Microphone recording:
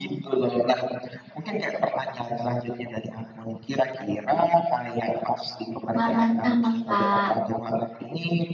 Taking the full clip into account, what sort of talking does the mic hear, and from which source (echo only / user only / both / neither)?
both